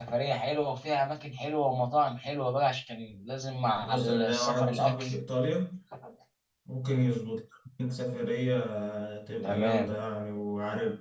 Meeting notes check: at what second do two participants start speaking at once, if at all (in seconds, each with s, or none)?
3.8 s